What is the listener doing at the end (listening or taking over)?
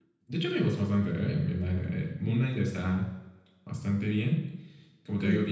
listening